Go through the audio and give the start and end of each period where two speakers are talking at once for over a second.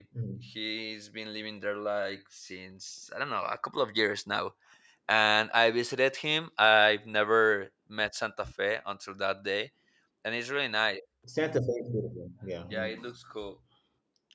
none

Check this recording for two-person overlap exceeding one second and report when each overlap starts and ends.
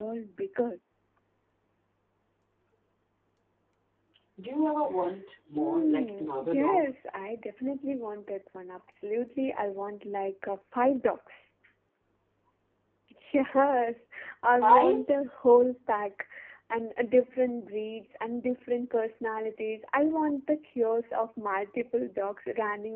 5.5-6.9

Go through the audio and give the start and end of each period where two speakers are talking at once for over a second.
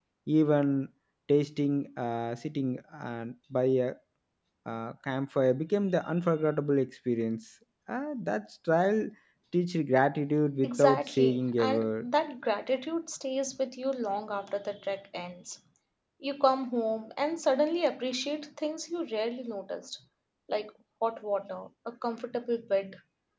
10.6-12.1

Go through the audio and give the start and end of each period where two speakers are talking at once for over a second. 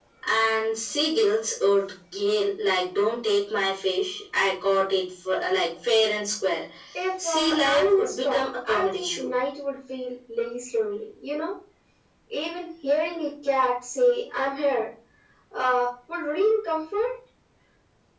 7.2-9.3

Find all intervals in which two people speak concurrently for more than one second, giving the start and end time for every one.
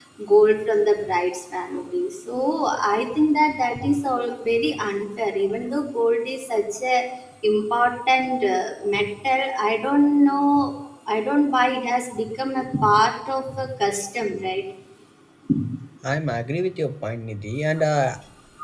none

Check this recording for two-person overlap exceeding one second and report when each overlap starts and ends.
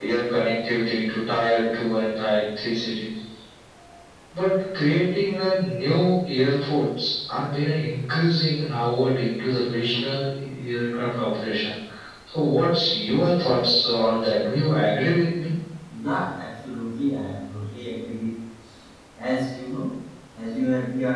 none

